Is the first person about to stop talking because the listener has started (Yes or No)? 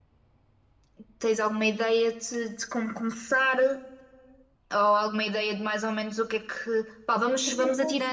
No